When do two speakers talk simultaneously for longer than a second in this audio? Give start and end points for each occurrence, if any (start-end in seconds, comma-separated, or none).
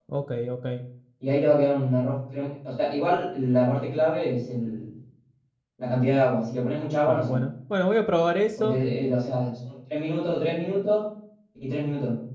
none